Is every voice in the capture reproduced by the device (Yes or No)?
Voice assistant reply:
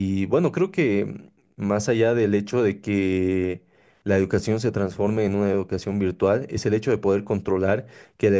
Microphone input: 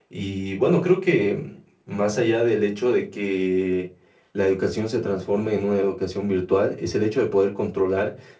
Yes